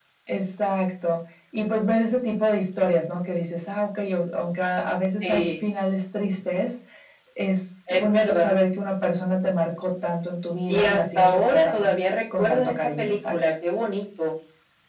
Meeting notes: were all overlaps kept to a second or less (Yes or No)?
No